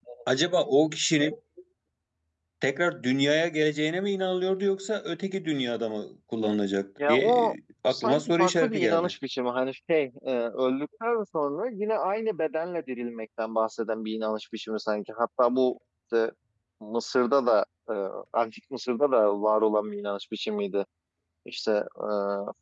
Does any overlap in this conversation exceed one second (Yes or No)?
Yes